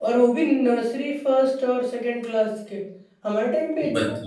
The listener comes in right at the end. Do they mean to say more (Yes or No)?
No